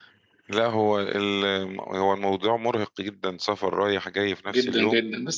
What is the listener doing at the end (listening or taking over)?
taking over